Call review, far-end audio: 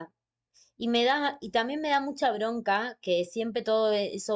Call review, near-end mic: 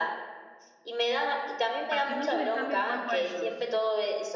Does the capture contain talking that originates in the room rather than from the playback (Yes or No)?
Yes